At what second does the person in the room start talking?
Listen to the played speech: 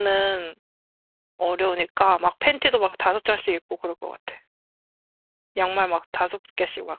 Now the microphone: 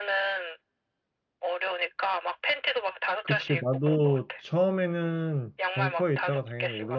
3 s

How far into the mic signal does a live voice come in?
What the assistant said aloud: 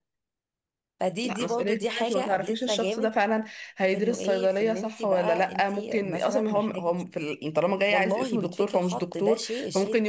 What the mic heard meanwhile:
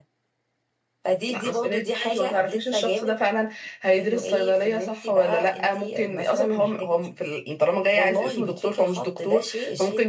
none

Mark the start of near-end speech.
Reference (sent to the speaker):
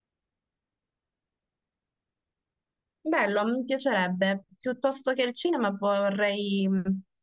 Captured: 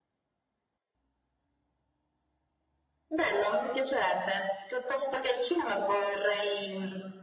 none

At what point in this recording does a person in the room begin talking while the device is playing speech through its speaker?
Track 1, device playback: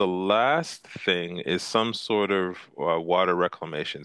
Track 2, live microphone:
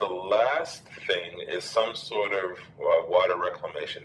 none

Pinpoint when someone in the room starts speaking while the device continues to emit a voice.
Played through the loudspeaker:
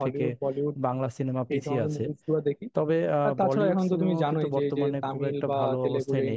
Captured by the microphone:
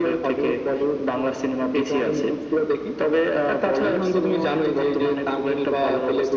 none

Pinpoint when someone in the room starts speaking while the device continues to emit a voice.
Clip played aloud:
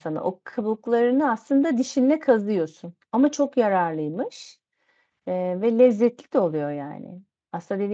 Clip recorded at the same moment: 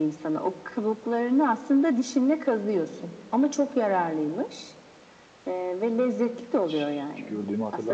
7 s

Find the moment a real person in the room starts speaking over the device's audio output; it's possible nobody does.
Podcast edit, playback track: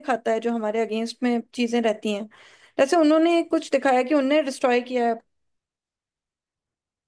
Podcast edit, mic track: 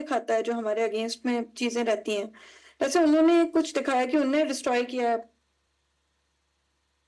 none

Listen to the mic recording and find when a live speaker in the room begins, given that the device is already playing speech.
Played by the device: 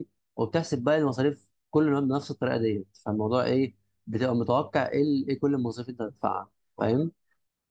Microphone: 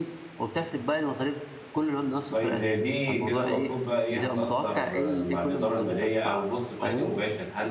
2 s

